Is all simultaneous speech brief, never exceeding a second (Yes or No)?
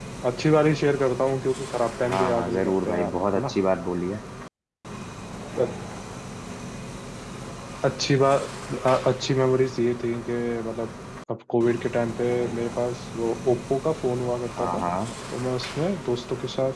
No